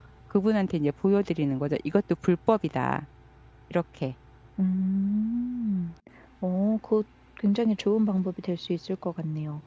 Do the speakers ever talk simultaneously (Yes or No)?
No